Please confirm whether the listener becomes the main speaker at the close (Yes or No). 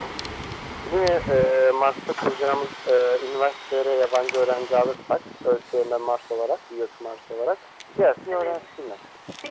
Yes